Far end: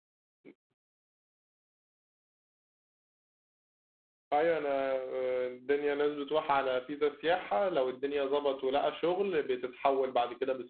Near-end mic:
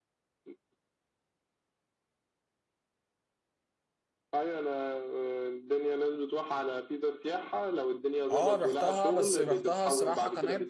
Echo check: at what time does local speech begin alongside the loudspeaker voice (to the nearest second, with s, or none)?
8 s